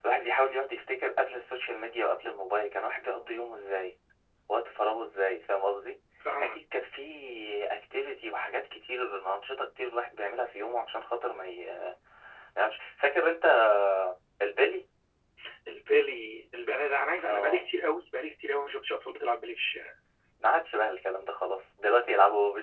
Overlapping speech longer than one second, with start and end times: none

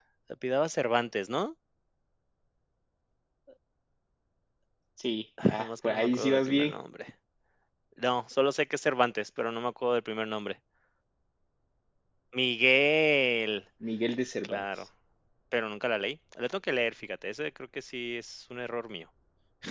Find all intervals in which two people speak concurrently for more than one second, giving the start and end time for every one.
5.4-6.7

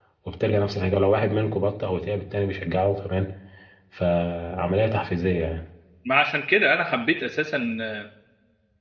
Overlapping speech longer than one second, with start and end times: none

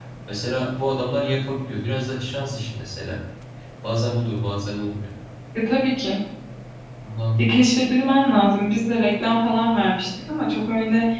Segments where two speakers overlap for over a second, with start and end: none

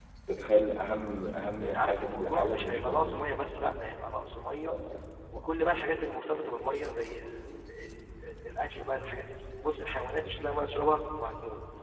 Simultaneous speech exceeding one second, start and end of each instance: 1.6-3.2

